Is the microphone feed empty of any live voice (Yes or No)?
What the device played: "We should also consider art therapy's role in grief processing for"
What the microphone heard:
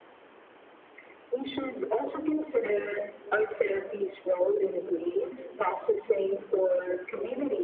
Yes